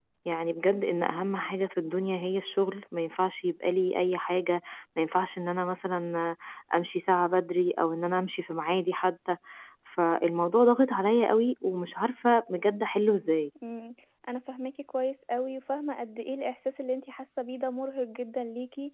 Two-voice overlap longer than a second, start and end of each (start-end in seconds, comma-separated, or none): none